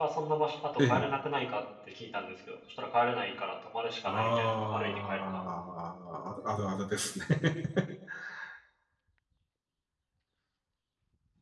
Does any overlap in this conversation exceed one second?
Yes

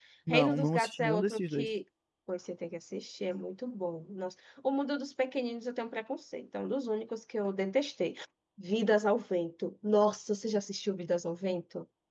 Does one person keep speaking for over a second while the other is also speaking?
Yes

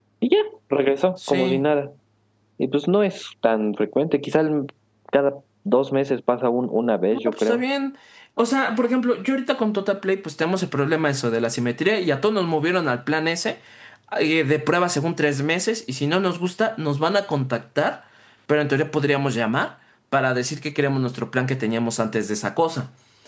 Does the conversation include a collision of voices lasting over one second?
No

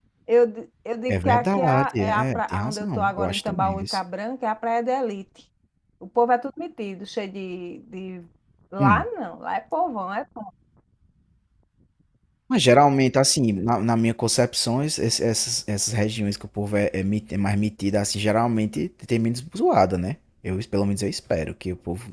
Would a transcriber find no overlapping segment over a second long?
No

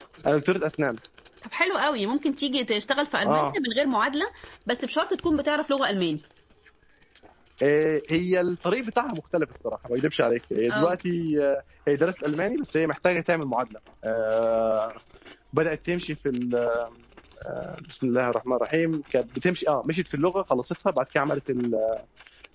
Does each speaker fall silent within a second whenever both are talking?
Yes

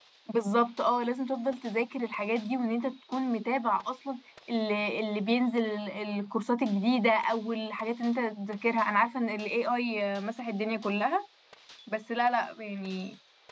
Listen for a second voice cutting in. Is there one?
No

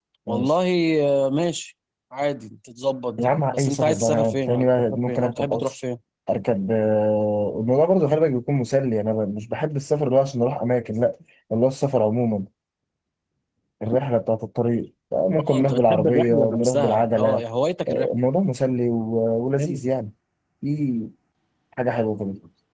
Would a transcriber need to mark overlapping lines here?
Yes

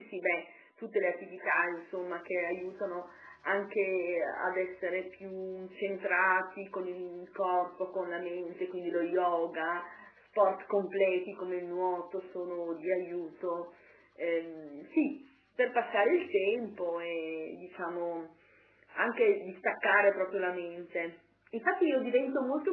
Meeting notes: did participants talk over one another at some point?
No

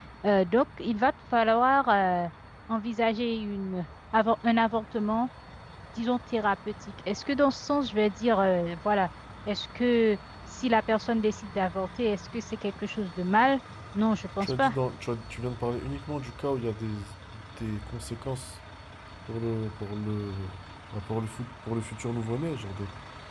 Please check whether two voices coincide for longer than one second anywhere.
No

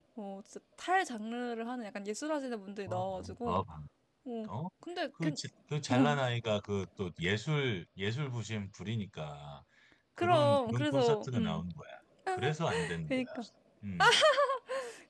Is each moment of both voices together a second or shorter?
No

